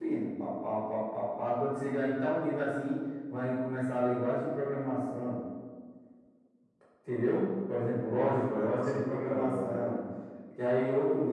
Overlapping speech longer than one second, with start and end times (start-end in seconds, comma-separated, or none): 8.0-10.0